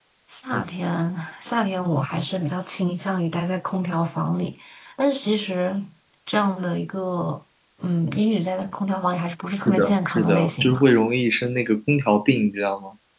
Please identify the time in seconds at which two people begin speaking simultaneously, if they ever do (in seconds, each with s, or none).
9.7 s